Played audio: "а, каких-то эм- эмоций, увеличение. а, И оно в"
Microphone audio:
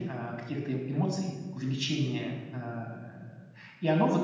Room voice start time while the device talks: none

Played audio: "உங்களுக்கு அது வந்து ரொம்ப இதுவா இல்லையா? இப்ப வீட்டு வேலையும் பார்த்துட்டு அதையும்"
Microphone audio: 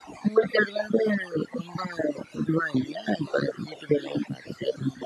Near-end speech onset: none

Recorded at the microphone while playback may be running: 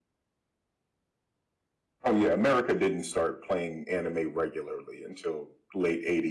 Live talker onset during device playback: none

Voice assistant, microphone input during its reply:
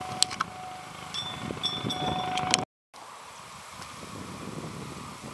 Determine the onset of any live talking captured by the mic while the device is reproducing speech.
none

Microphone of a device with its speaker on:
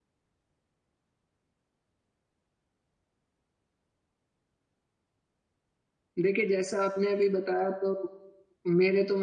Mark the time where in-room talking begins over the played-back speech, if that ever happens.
6.2 s

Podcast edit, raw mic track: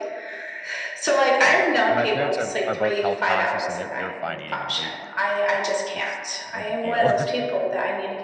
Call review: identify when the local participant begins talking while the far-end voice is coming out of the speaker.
1.4 s

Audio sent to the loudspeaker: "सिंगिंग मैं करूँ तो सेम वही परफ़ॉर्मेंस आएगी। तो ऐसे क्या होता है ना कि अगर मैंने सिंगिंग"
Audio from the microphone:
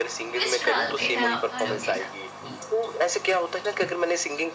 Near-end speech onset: 0.3 s

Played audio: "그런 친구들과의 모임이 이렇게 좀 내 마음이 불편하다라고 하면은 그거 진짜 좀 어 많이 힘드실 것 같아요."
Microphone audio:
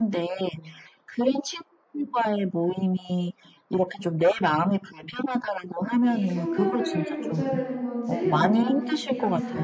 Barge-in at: 6.0 s

